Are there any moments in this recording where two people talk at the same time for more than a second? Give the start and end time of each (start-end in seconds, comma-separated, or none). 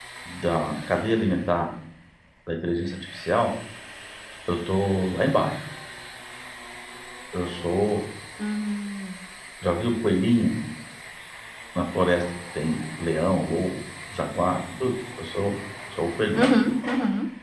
none